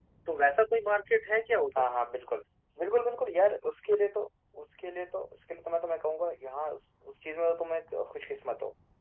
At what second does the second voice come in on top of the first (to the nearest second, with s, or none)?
none